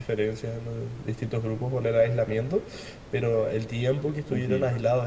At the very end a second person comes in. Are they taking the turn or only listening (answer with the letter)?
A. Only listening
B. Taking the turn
A